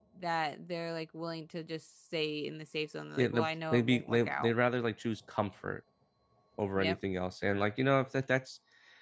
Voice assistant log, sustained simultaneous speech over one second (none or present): present